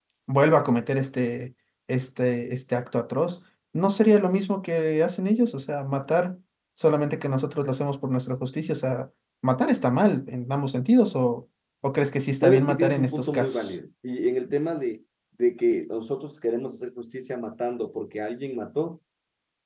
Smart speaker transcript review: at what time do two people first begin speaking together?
12.4 s

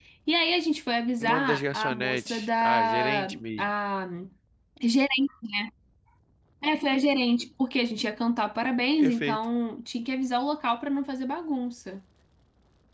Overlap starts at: 1.2 s

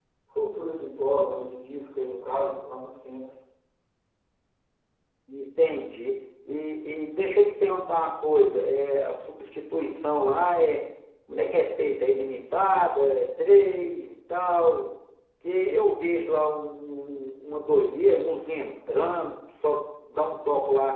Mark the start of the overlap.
none

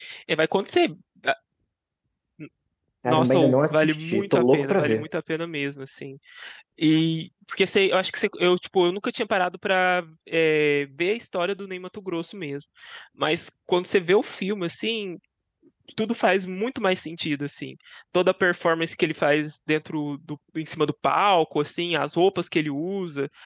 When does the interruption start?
3.0 s

